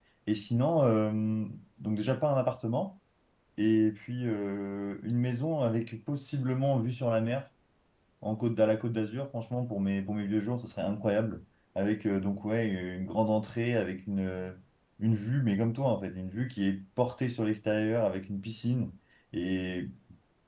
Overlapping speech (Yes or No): No